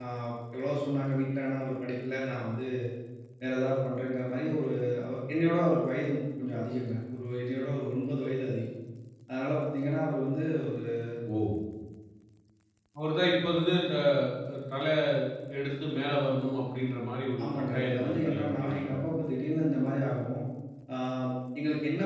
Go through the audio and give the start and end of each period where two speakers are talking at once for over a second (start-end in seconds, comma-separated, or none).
17.4-19.0